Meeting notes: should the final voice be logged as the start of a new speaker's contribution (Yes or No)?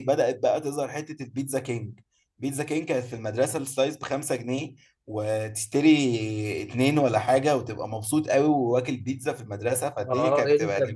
Yes